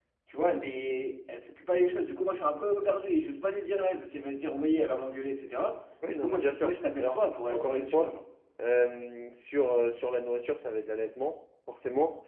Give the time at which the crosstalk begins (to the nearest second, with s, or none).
6 s